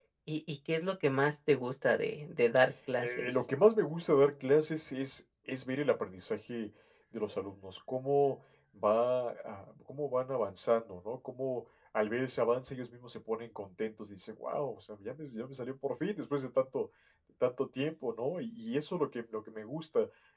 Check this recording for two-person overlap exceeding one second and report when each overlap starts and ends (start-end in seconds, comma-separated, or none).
none